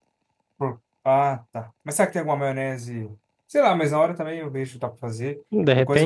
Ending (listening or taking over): taking over